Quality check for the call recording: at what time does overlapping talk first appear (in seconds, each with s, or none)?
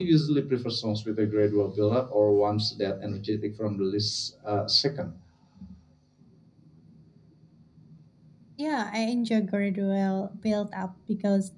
none